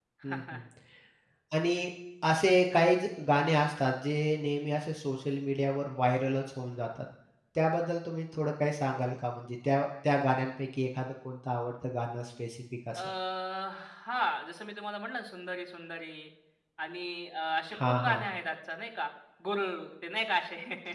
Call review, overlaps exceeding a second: none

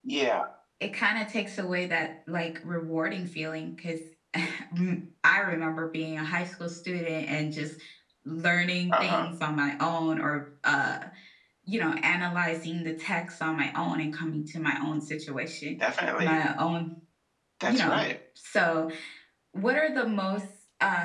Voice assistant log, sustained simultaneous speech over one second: none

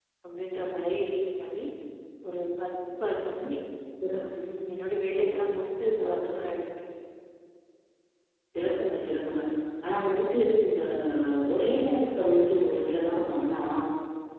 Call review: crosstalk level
none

